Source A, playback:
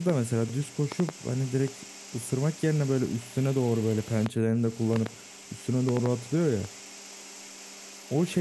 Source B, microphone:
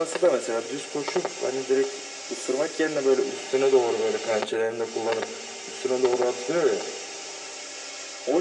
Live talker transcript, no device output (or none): none